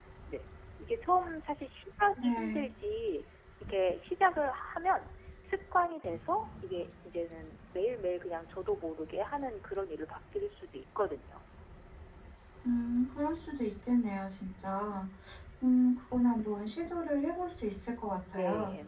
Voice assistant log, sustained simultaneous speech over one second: none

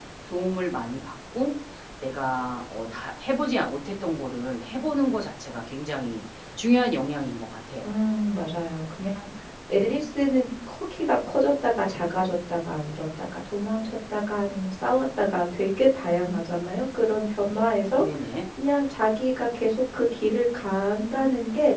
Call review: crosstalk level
none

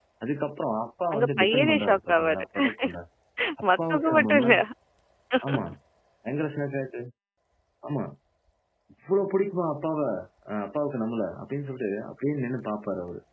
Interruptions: present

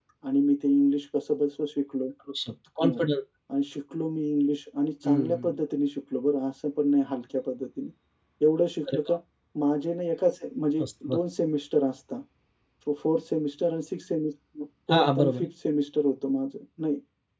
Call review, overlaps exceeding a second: none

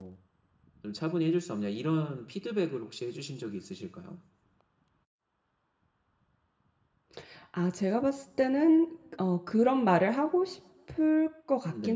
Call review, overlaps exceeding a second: none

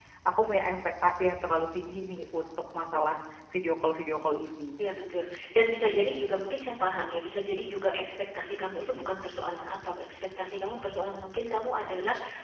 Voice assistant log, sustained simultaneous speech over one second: none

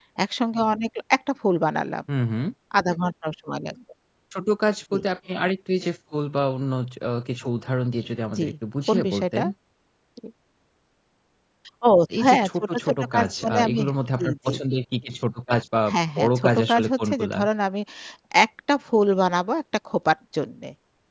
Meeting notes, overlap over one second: present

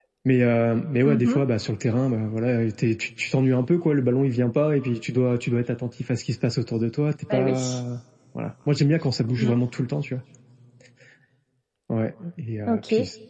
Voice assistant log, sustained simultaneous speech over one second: none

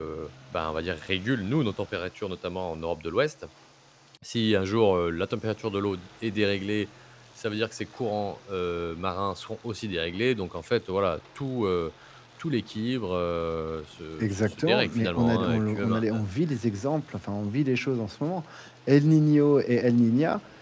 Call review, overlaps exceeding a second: present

